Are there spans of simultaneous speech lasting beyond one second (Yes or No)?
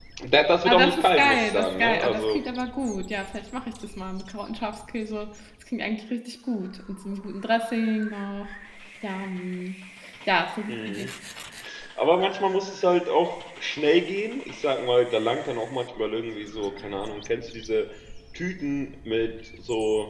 Yes